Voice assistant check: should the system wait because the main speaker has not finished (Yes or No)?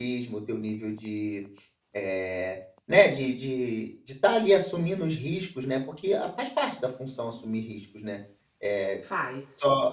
Yes